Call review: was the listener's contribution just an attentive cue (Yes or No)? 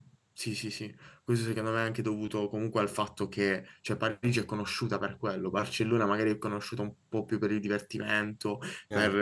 Yes